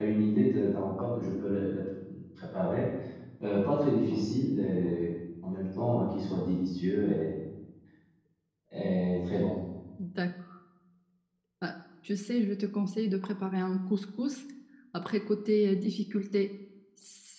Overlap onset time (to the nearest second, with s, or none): none